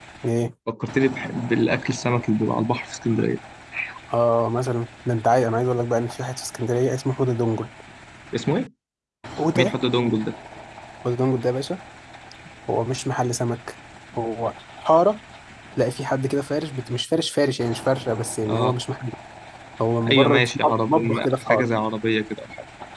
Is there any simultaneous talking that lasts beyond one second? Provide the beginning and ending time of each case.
20.1-21.7

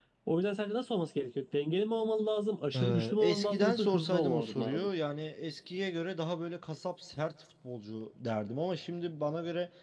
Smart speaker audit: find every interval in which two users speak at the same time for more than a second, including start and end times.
2.8-4.9

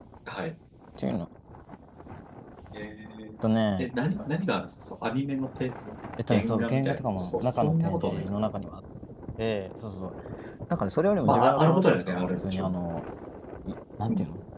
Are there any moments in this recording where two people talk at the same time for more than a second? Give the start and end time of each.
6.3-8.3, 11.2-12.8

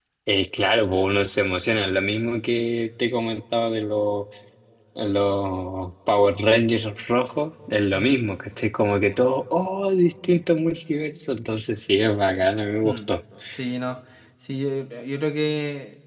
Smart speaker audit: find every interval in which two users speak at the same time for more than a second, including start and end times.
none

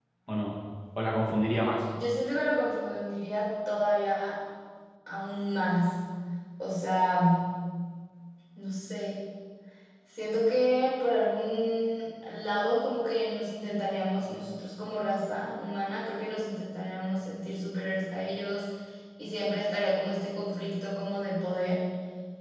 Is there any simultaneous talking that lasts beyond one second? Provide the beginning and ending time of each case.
none

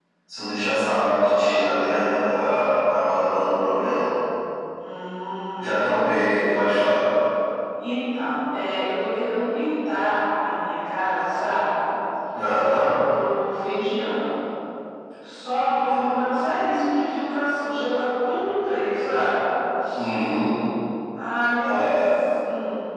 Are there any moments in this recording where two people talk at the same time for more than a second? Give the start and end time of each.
none

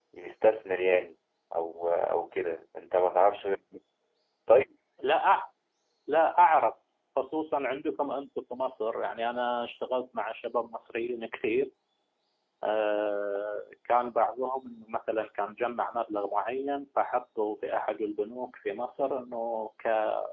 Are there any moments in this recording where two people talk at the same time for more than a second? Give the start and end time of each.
none

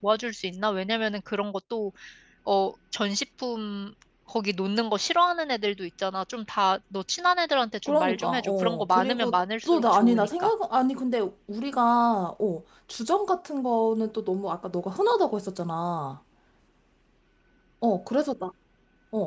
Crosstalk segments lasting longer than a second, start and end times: 7.9-10.5

